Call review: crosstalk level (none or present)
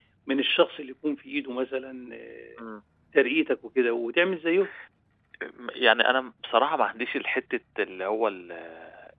none